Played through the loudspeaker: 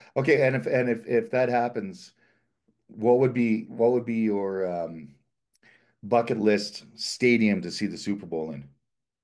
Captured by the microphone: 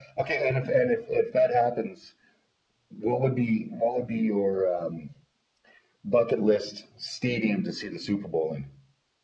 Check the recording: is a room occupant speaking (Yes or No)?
No